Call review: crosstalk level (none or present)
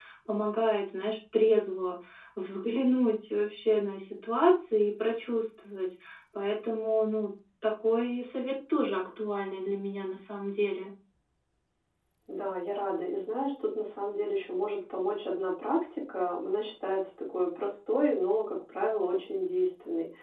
none